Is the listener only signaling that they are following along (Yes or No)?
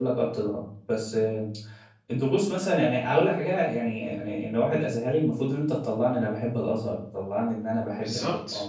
Yes